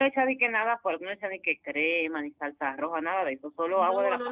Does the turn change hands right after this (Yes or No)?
Yes